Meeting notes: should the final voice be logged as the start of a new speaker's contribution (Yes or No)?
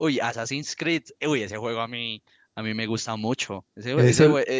No